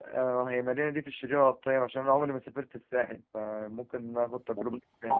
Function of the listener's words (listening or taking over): taking over